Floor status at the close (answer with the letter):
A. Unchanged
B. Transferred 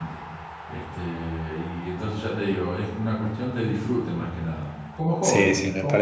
B